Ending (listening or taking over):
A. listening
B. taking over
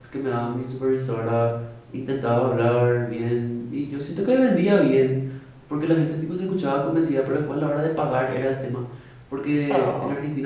A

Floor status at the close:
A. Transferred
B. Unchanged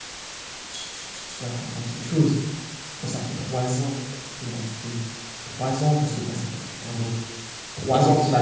B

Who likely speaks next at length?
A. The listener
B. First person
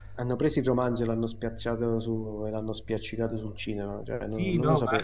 A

